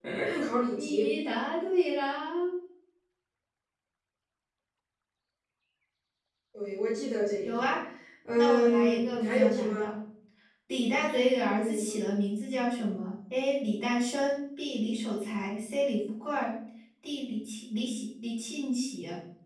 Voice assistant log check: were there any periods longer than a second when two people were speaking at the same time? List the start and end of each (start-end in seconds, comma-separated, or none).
8.3-9.9